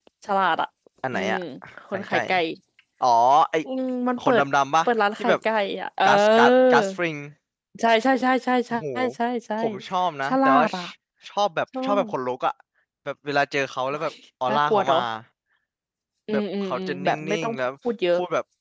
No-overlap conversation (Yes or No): No